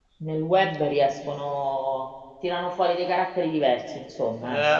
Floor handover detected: Yes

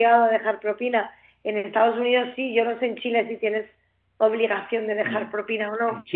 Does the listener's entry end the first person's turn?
Yes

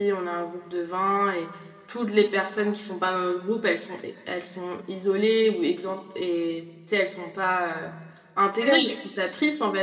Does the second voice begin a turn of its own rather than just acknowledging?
No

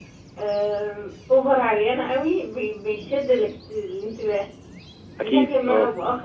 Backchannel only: Yes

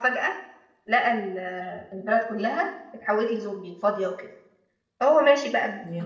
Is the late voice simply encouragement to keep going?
Yes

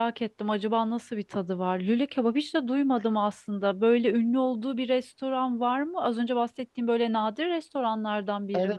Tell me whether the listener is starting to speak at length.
Yes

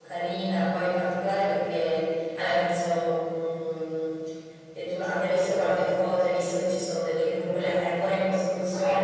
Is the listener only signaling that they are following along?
Yes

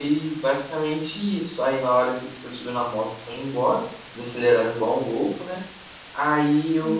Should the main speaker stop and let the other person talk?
No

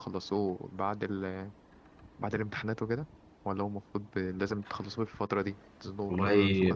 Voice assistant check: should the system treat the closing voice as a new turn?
Yes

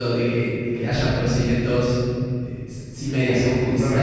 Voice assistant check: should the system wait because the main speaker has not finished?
No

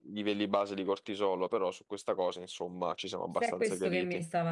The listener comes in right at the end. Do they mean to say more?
Yes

